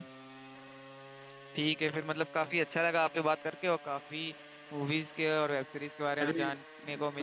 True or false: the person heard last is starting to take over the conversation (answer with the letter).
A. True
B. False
A